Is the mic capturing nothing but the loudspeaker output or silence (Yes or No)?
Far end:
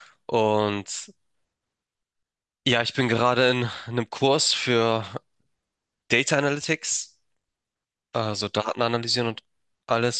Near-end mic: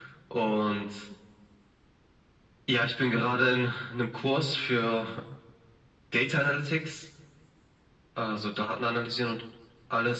Yes